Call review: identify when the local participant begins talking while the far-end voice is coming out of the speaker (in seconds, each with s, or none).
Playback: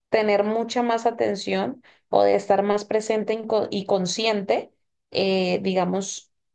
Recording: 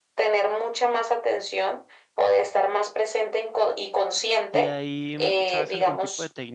4.5 s